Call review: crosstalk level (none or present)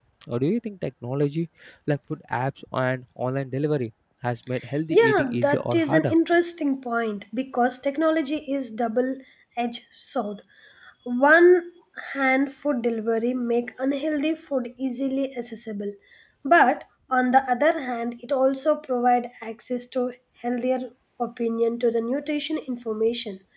present